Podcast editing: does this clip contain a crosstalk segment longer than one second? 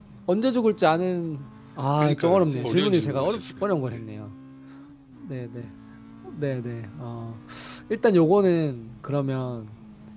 Yes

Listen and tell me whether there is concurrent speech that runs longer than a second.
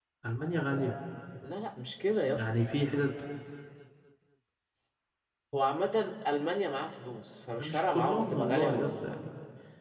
Yes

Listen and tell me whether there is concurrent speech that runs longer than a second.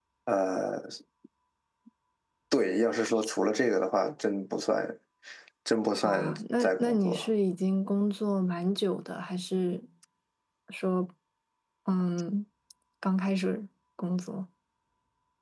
Yes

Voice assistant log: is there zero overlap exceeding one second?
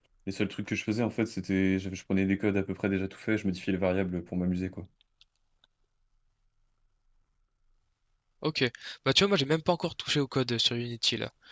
Yes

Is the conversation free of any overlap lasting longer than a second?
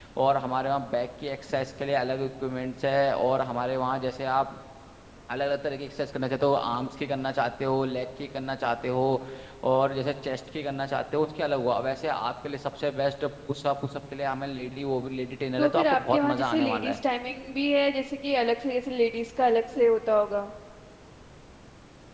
No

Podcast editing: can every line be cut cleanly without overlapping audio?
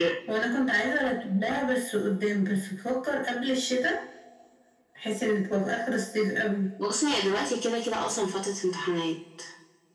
Yes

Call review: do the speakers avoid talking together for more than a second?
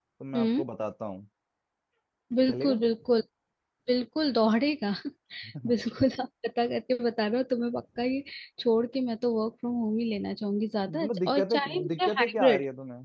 No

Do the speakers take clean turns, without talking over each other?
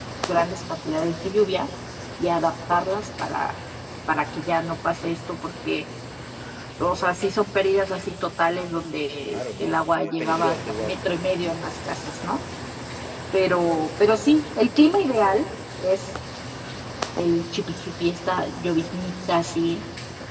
No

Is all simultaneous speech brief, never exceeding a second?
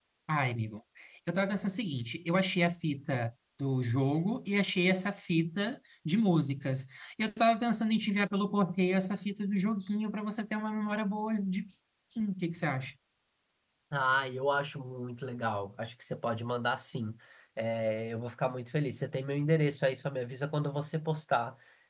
Yes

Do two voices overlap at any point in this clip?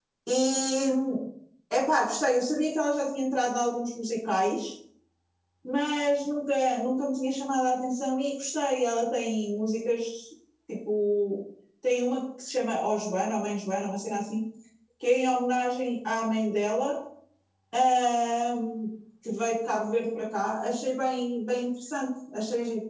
No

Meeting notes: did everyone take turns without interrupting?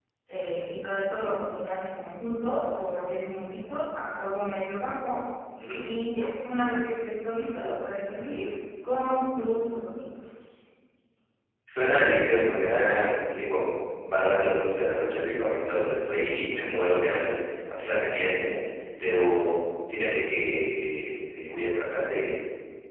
Yes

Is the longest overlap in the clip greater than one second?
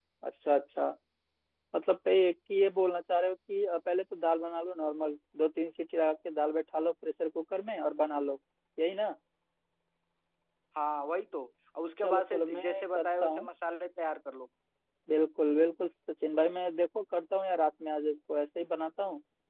Yes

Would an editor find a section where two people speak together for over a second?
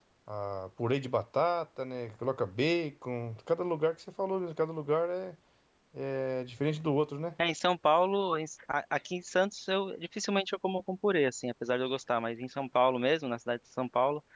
No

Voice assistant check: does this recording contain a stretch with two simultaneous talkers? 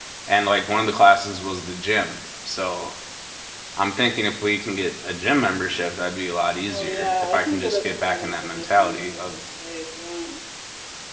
Yes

